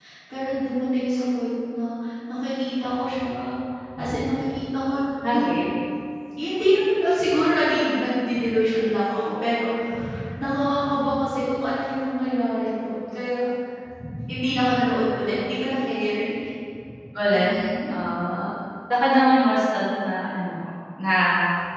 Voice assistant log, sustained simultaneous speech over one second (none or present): none